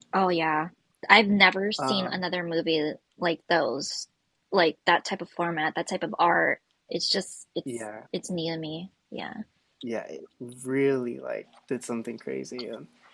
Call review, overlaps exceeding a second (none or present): none